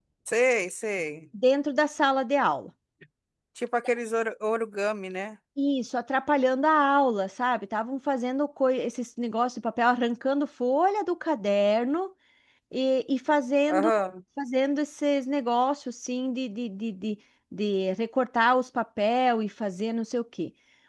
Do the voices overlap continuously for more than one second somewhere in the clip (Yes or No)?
No